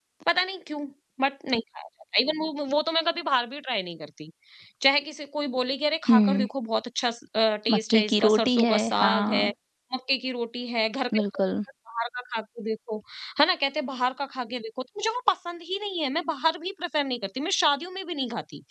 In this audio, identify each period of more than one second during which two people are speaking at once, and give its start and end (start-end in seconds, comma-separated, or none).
7.7-9.5